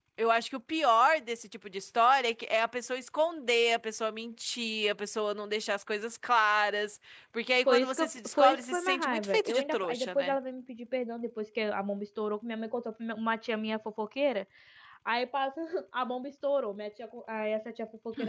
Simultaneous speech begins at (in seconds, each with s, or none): 7.7 s